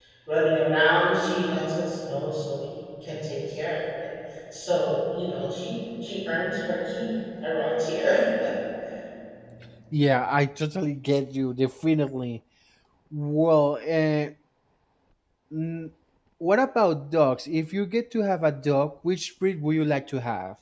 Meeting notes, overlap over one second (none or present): none